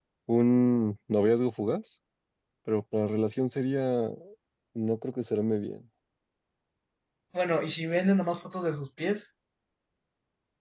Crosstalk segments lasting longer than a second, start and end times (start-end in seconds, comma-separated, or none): none